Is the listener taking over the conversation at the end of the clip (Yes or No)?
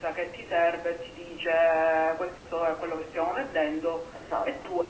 Yes